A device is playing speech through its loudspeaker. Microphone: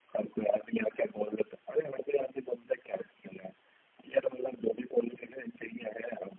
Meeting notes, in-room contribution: none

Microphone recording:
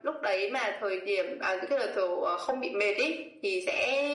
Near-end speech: none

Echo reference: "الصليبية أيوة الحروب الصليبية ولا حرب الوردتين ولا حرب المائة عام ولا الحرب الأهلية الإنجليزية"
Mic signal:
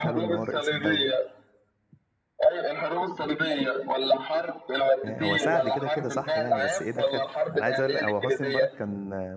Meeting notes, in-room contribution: present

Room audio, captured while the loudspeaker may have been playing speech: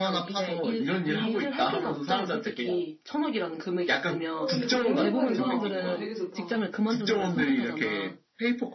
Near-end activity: present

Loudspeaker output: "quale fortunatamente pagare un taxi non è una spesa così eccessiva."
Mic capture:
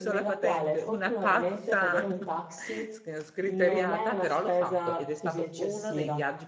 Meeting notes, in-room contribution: present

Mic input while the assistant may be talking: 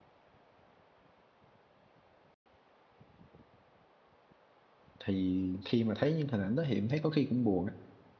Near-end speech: present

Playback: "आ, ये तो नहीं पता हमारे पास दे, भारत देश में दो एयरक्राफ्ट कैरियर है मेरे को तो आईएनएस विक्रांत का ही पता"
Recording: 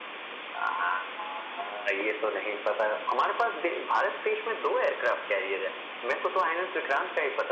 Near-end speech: none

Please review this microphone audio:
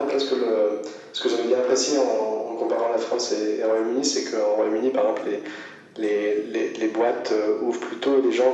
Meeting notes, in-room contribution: none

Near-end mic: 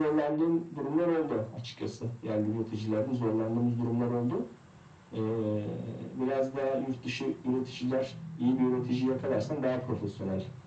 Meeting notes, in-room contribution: none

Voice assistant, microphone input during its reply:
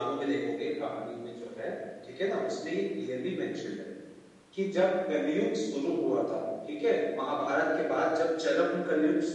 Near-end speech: none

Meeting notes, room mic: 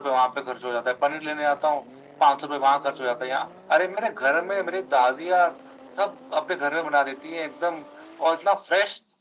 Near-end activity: none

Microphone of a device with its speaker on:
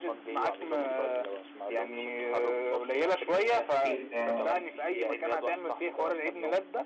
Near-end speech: present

